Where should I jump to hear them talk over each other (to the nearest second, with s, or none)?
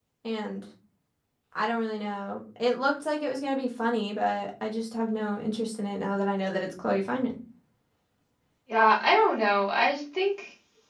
none